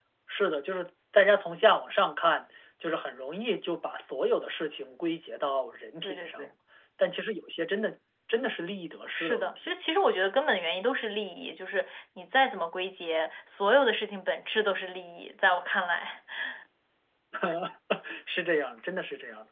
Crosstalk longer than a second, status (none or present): none